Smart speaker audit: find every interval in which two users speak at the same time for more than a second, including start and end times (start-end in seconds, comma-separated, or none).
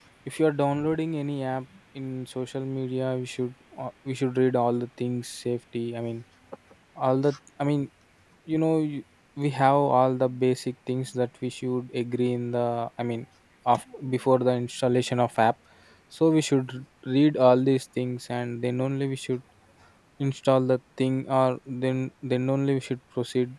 none